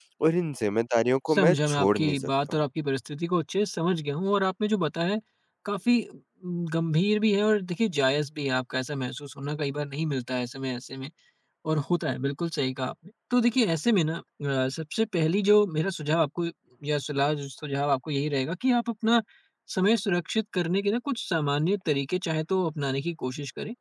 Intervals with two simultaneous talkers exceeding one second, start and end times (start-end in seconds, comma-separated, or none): 1.3-2.6